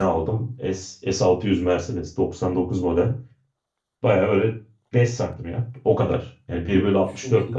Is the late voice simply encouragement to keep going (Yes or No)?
Yes